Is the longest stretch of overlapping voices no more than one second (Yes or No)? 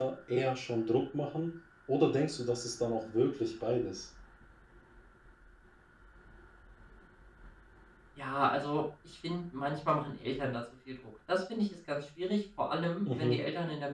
Yes